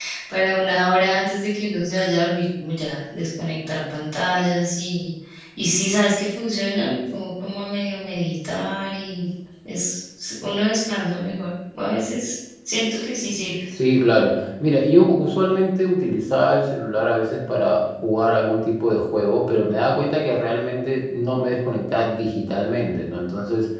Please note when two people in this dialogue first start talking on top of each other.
none

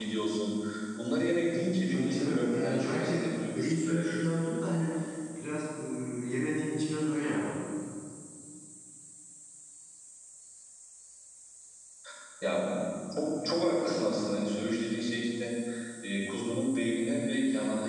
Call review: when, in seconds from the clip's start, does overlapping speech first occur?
2 s

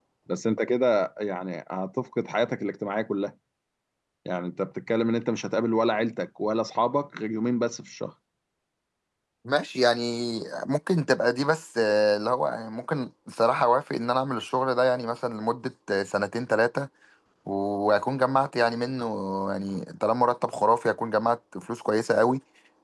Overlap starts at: none

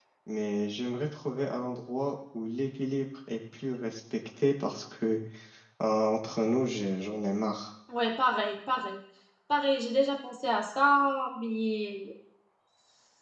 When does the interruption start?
none

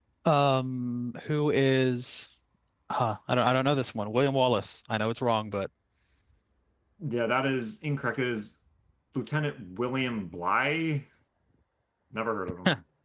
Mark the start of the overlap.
none

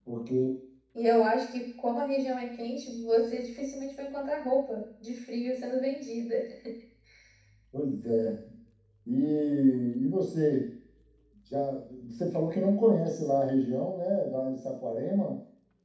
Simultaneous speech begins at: none

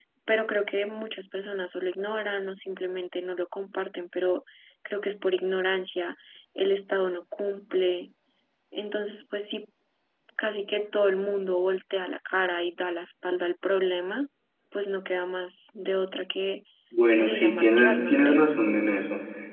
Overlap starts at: 17 s

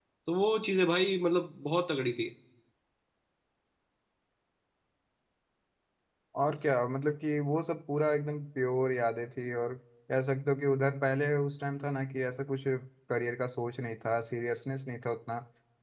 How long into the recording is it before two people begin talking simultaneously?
none

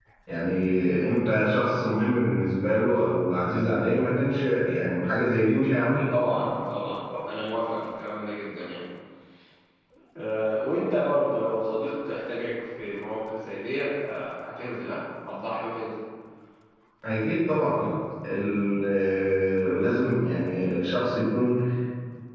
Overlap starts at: none

